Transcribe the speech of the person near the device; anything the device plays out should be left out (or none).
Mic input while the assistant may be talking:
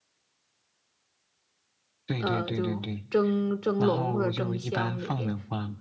呃，就蒸蒸笼或者蒸箱里边